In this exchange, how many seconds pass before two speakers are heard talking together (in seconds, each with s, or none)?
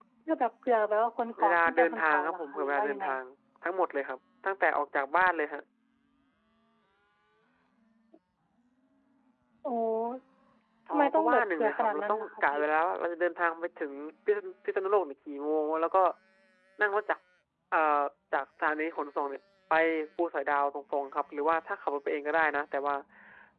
1.4 s